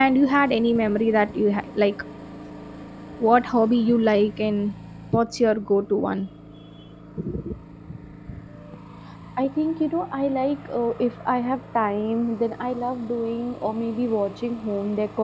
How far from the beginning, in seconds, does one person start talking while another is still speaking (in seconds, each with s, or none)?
none